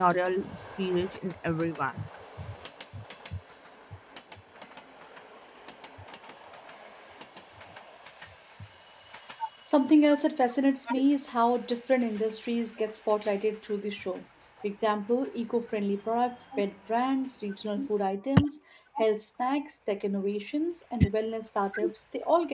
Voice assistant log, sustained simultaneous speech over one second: none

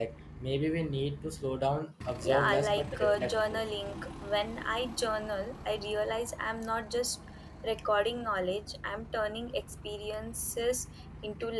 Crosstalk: present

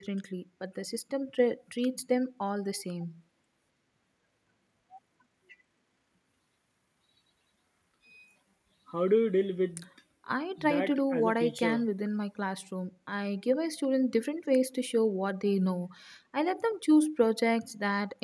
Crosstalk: present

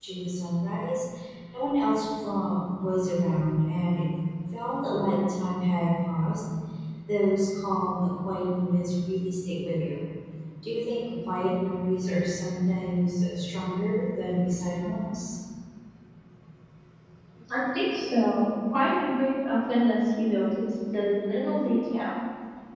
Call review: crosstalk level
none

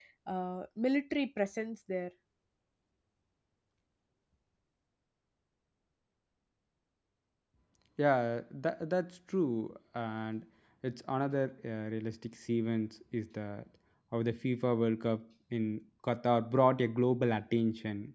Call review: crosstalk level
none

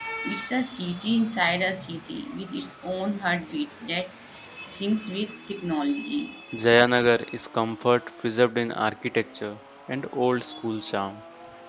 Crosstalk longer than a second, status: none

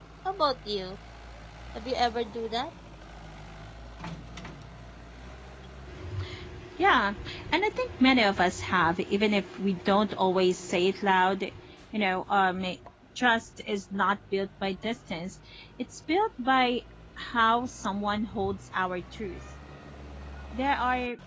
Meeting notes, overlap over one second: none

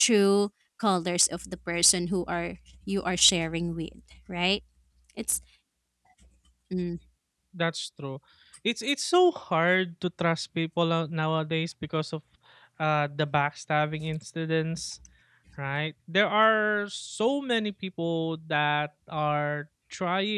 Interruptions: none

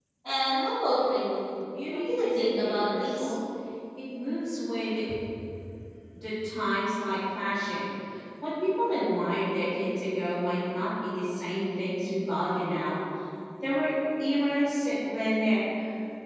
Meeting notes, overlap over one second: present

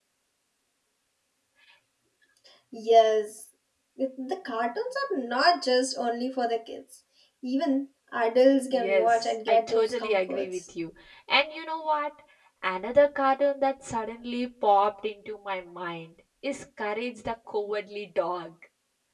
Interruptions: present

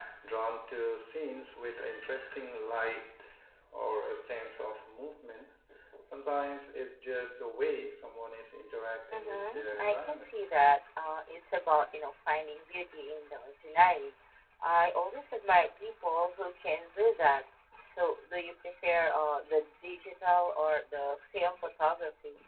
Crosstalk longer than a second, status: present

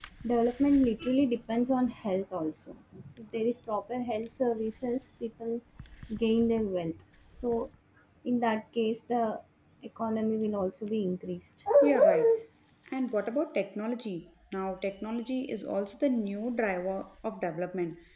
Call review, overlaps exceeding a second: none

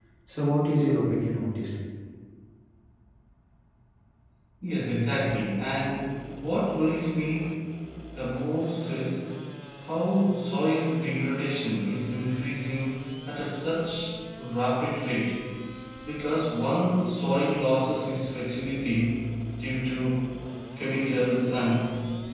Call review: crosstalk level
none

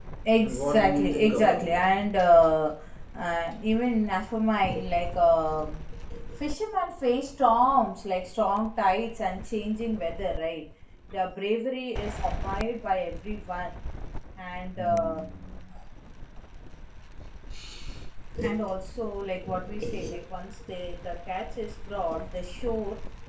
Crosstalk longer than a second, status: present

